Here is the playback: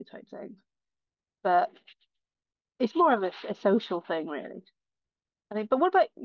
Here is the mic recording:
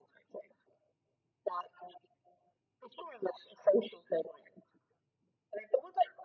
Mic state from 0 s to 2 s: echo only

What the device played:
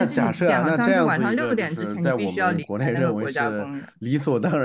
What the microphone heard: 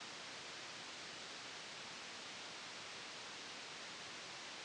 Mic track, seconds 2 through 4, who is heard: neither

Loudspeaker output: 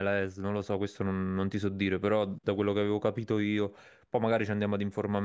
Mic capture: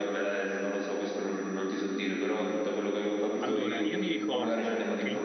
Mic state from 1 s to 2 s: echo only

